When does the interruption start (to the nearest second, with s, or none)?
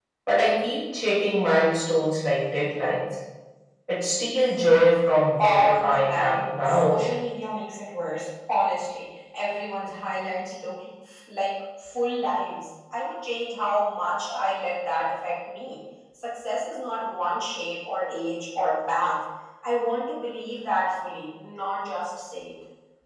5 s